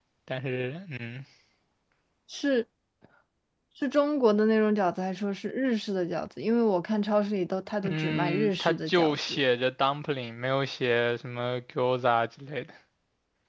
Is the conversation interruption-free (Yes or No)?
No